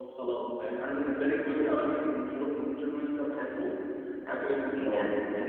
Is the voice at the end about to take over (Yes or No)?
No